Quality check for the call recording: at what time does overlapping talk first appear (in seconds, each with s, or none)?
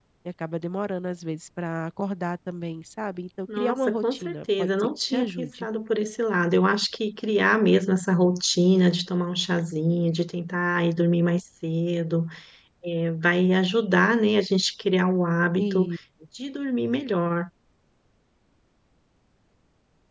3.6 s